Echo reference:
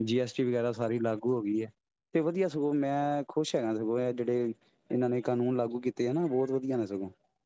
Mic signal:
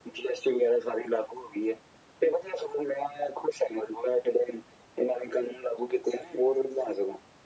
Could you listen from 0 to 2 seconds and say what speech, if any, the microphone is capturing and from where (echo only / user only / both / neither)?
echo only